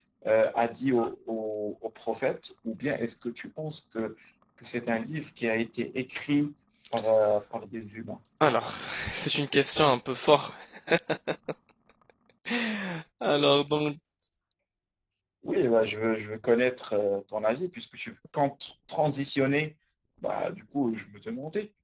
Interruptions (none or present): none